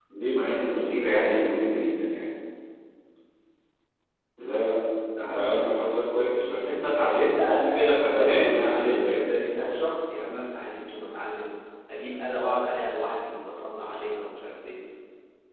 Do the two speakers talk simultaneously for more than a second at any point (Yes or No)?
Yes